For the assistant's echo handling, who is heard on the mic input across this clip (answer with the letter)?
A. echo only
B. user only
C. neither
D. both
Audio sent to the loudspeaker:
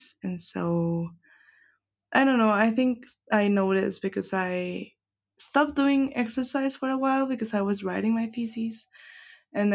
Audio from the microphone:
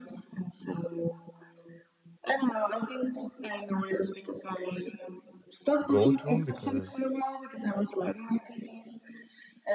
D